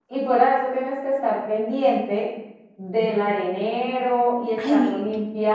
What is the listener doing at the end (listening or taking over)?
listening